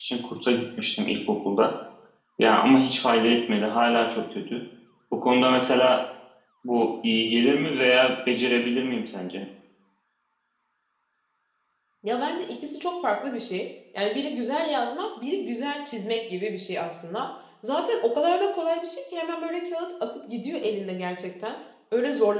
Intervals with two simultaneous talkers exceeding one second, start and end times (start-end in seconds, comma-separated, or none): none